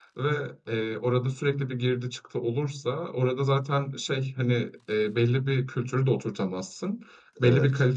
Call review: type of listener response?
listening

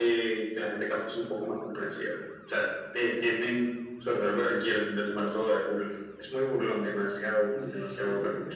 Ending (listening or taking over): taking over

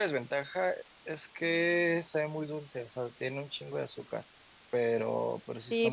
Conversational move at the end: taking over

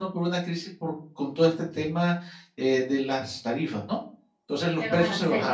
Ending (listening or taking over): listening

